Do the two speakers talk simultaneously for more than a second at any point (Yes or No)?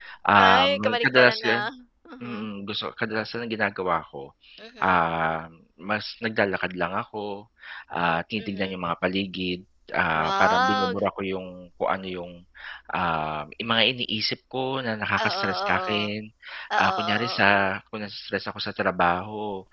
Yes